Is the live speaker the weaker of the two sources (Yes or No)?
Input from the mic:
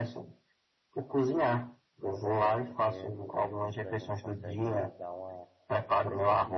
Yes